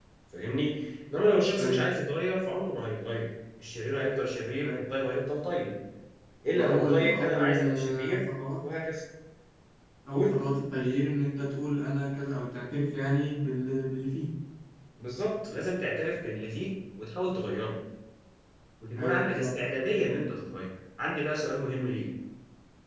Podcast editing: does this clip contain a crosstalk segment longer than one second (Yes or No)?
Yes